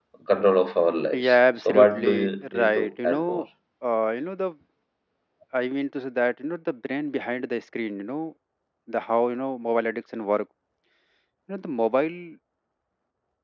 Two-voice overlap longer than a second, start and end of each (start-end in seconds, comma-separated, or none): 1.1-3.4